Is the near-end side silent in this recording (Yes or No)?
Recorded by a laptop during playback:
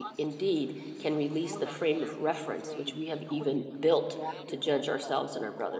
No